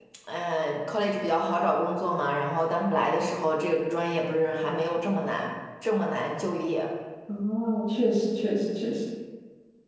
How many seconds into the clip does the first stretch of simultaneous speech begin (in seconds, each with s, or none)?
none